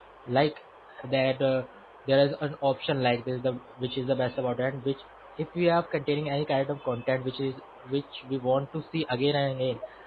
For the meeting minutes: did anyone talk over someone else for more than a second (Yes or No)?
No